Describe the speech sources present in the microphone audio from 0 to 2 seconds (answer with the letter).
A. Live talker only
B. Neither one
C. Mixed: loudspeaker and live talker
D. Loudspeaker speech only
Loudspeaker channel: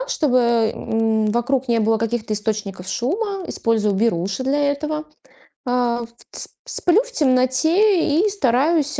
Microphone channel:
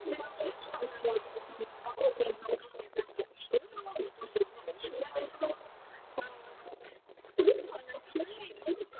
D